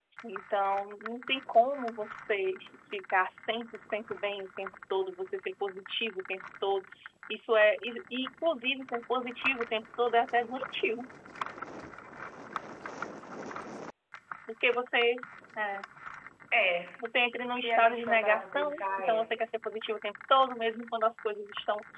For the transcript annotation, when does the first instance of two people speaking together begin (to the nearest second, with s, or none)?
18 s